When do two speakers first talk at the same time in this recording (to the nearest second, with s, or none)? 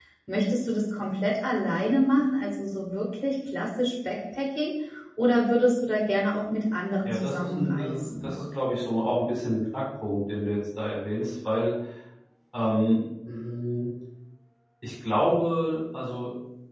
7 s